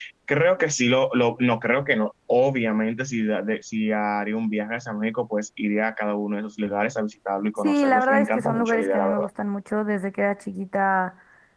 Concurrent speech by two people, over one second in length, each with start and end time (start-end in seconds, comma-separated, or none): 7.6-9.2